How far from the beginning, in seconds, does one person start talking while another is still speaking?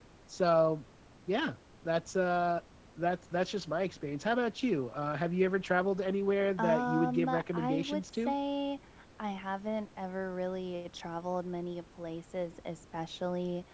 6.6 s

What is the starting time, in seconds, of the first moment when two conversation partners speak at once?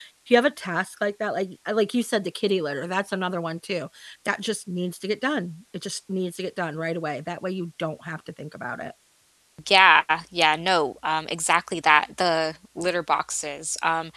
none

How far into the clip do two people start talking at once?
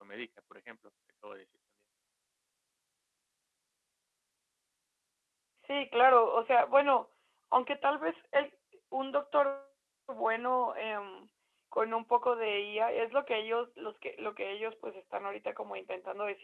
none

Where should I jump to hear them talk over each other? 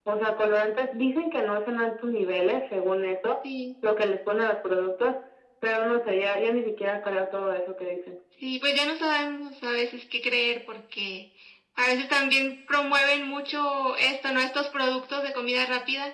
none

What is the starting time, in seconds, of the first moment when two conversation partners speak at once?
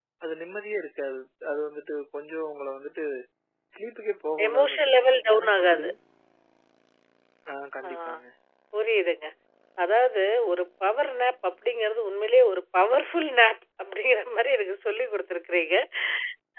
4.5 s

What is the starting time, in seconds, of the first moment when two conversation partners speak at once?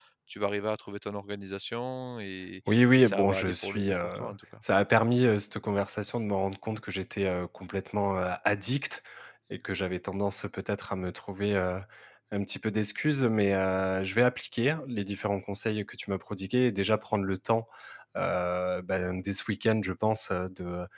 2.7 s

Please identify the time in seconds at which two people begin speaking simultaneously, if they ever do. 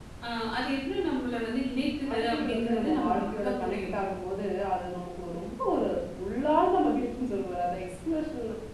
2.0 s

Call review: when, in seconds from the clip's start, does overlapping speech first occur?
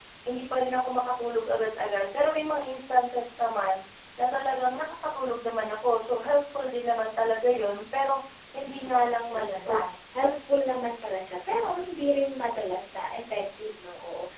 8.6 s

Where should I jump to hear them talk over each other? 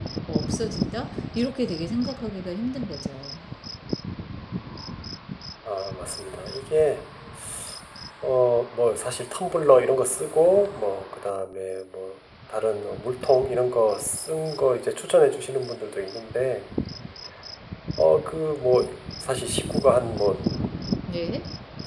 none

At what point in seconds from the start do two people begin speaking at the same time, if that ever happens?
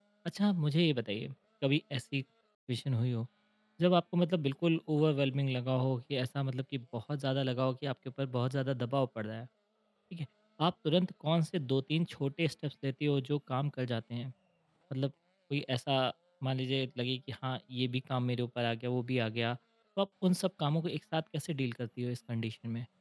none

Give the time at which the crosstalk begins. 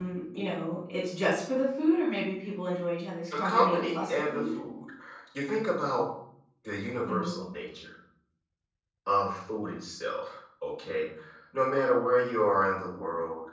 3.3 s

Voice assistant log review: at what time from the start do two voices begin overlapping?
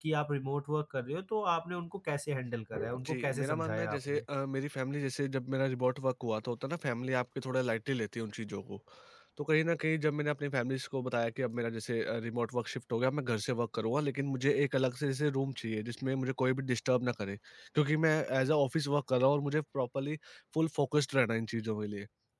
2.9 s

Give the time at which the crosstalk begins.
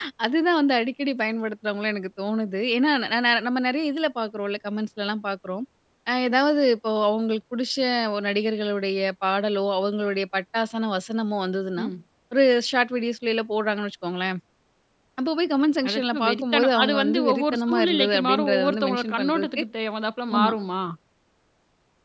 15.9 s

